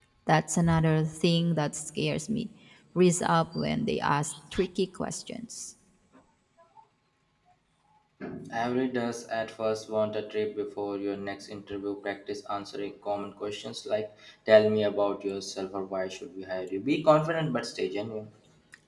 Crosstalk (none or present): none